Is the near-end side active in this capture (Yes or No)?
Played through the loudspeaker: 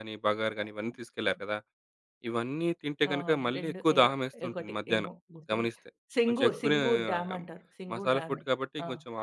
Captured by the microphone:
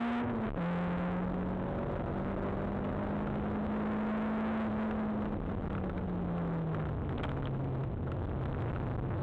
No